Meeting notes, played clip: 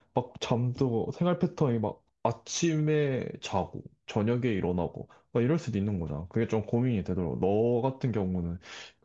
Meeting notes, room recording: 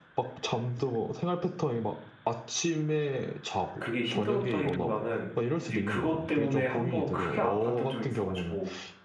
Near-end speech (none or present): present